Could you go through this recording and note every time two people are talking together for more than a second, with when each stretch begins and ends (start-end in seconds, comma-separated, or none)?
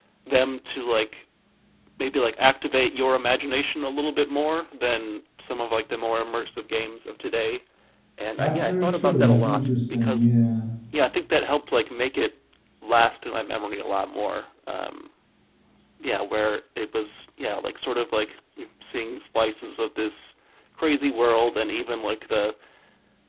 8.4-10.3